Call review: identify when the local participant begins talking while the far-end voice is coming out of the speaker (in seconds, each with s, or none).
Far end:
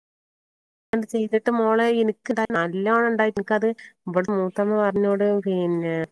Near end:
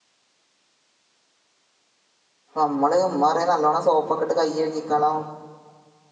2.6 s